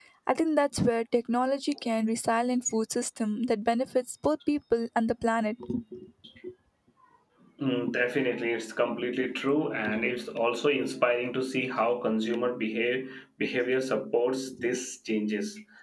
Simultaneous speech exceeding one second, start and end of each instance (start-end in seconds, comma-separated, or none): none